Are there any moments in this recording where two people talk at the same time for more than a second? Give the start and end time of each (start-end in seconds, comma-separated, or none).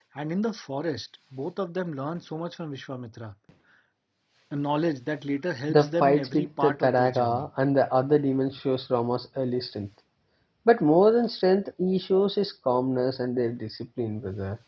5.7-7.5